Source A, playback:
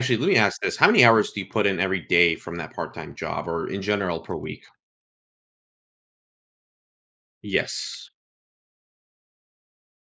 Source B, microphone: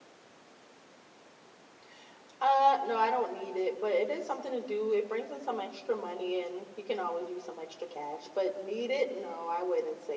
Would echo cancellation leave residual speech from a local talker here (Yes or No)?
Yes